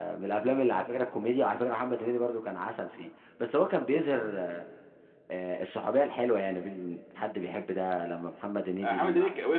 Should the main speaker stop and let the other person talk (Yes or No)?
Yes